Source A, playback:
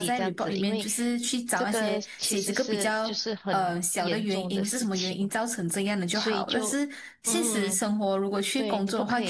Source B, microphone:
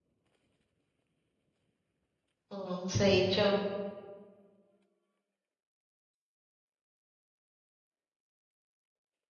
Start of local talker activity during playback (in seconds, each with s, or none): 2.5 s